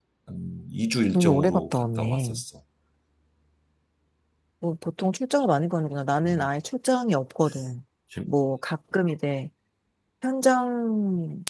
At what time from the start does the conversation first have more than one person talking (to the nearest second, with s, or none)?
1 s